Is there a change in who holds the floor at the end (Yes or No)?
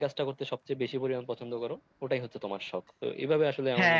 Yes